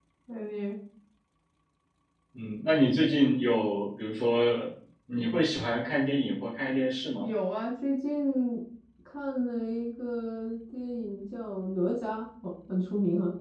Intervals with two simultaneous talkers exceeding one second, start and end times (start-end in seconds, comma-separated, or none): none